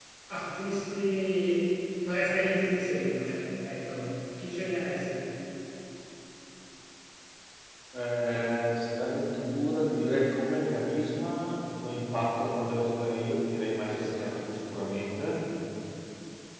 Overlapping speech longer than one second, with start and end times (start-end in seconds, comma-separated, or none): none